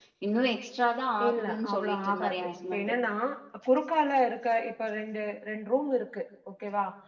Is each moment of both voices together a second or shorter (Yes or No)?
No